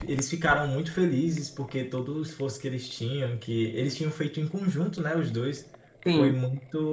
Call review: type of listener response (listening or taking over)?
listening